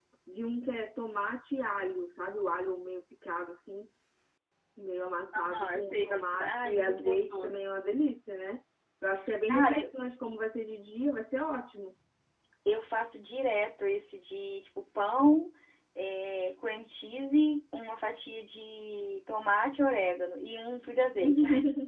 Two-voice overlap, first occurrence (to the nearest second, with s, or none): 5 s